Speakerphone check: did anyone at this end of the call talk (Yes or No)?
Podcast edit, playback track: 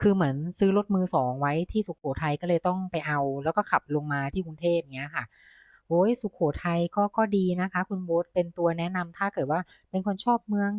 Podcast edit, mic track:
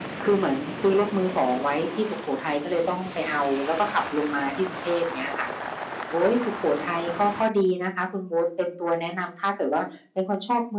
No